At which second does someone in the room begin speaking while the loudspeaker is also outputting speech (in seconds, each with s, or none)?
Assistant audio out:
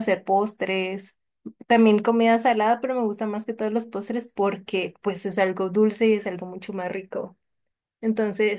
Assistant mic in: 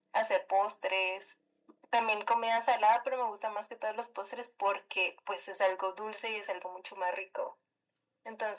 none